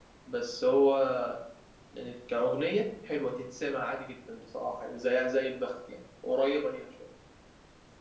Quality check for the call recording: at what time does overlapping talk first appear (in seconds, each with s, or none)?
none